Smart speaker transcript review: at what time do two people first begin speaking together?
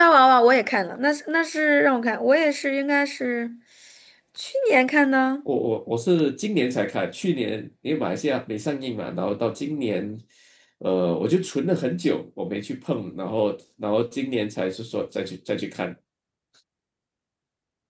none

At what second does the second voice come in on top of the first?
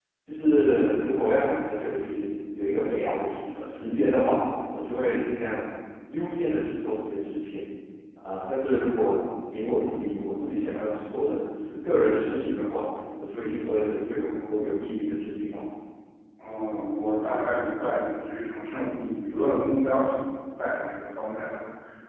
none

